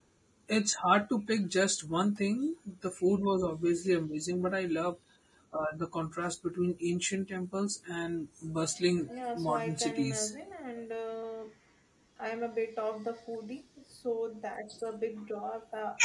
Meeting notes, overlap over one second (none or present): present